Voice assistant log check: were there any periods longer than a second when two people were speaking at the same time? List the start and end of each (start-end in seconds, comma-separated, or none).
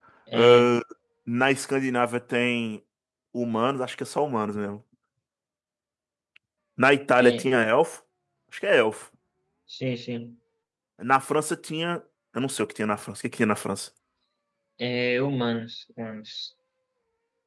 none